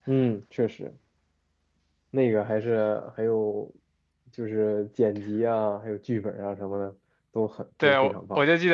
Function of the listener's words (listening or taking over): taking over